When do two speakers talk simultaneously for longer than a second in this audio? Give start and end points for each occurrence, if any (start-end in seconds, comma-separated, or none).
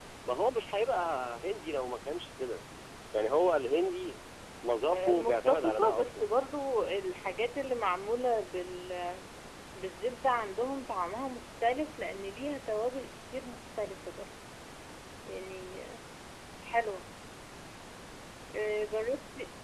4.9-6.3